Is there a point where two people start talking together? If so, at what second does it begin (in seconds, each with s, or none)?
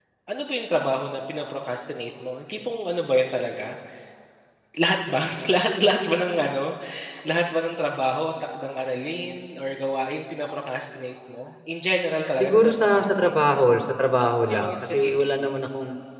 12.4 s